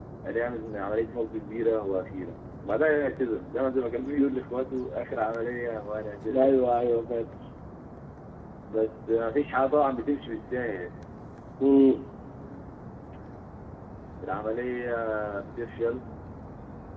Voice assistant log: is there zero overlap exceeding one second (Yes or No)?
Yes